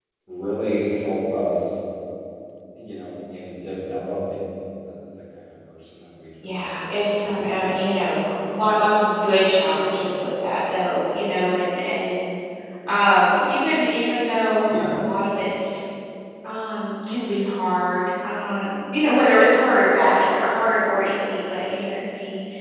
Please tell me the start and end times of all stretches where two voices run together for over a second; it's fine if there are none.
6.4-7.7

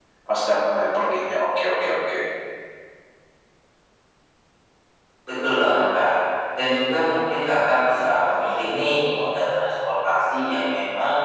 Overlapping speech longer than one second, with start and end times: none

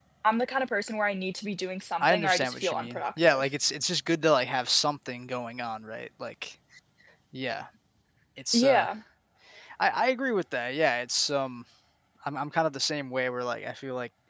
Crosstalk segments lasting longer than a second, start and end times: 2.0-3.4

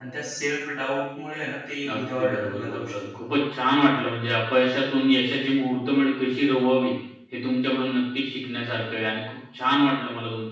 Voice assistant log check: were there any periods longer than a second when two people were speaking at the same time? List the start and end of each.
1.9-3.3

